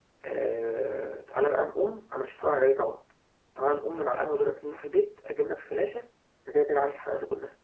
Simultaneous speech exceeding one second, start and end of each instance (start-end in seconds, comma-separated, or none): none